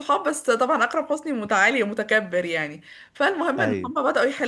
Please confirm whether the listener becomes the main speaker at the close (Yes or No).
No